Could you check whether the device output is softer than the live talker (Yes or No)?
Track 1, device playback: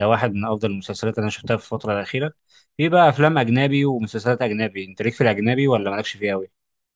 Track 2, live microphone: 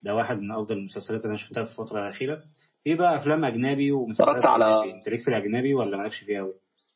Yes